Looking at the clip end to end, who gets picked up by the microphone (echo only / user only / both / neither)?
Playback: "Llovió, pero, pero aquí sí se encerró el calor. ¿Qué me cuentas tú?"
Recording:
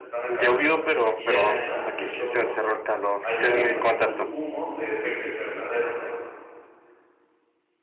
both